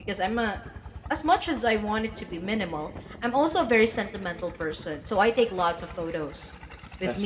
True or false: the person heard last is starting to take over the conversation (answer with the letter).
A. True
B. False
B